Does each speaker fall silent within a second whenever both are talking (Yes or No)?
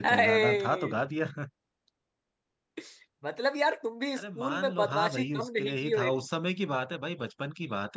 No